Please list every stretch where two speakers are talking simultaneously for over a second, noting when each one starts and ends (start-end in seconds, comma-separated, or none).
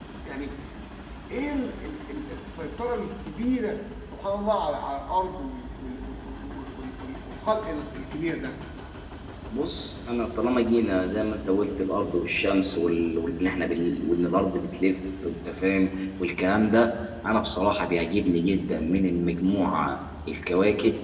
none